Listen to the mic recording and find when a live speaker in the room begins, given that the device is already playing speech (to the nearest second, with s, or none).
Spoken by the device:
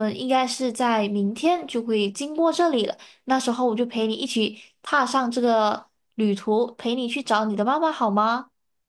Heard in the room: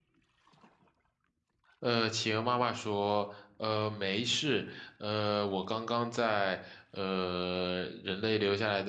2 s